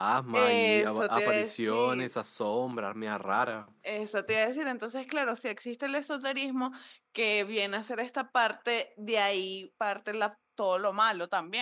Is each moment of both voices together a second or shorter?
No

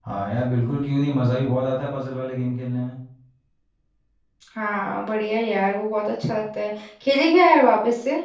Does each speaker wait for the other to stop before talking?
Yes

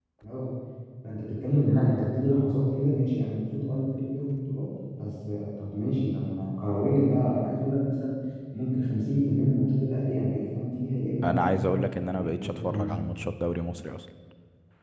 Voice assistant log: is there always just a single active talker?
No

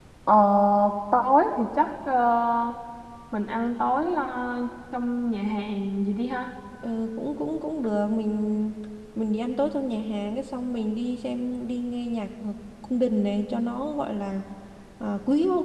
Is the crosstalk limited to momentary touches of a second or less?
Yes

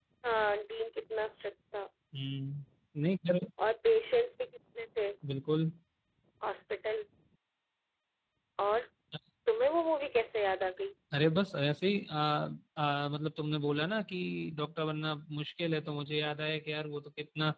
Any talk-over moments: No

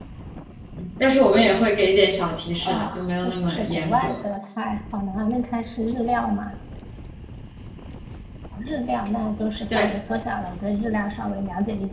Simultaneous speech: Yes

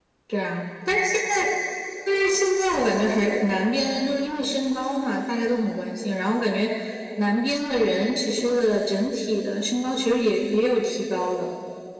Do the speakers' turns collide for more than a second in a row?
No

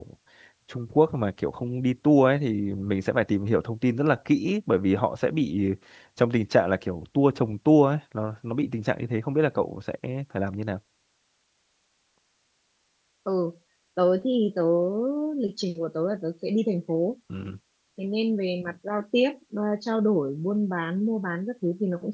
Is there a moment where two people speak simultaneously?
No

